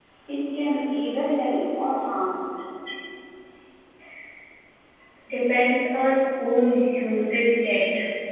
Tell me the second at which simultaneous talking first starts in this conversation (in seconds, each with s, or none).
none